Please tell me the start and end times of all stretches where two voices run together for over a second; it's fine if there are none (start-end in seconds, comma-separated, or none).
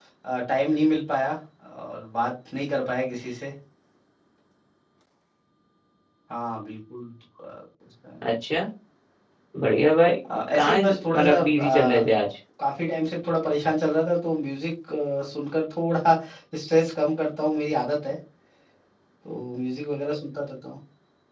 10.5-12.1